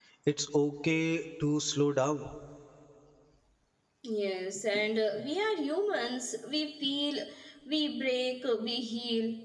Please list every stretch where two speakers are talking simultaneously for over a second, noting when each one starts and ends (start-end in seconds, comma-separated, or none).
none